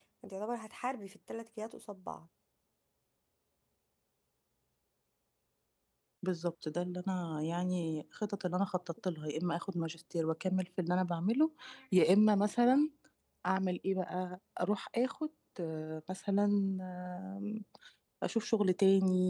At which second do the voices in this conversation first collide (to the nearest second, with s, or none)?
none